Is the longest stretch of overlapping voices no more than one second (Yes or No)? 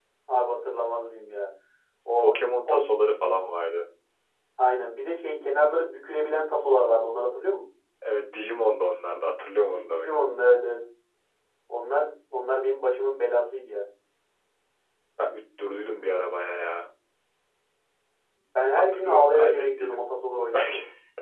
No